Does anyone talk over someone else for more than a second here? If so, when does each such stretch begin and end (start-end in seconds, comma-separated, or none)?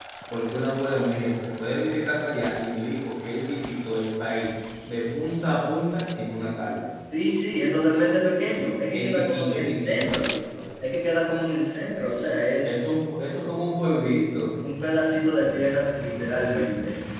8.9-10.3